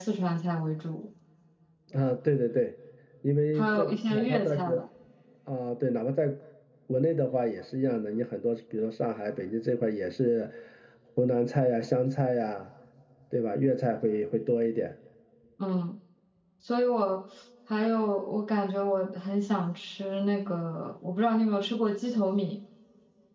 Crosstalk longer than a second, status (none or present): present